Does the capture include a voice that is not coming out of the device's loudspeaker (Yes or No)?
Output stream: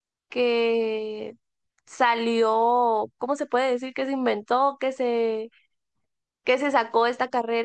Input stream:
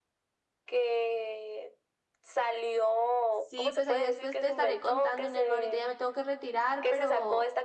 Yes